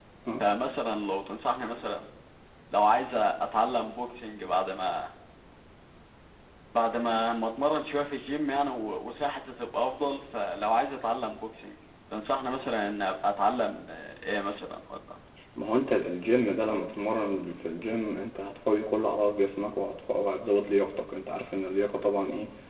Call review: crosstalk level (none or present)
none